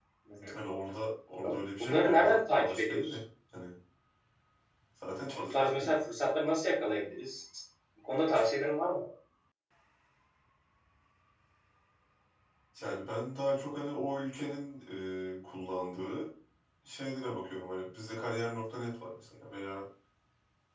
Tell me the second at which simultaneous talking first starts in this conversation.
1.4 s

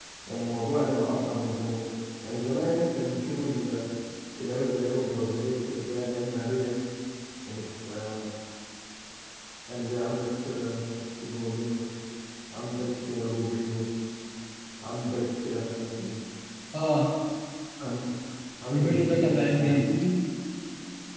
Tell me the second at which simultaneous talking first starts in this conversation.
18.7 s

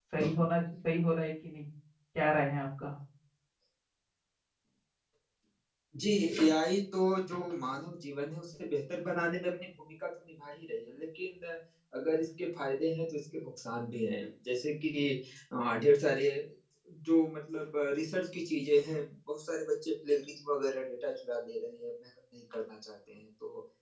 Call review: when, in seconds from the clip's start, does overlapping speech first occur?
none

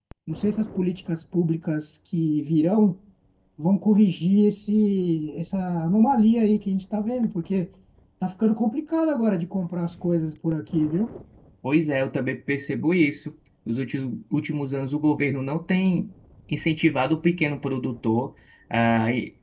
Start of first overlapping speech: none

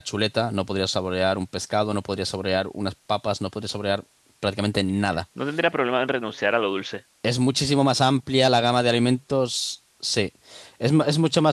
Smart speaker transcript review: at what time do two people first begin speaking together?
none

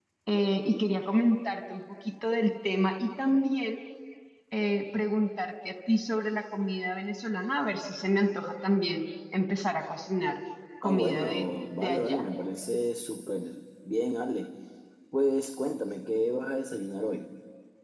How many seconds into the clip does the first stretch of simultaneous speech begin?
10.8 s

